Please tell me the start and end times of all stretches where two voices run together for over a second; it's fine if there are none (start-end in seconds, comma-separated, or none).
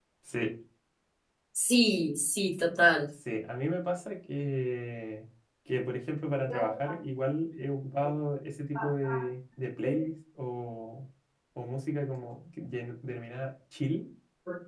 none